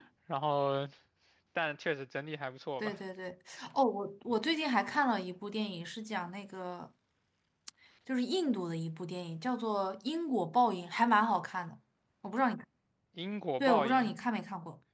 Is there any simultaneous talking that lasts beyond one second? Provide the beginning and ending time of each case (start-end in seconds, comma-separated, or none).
none